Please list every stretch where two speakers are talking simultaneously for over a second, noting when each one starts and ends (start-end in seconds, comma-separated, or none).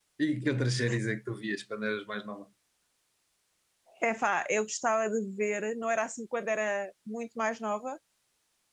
none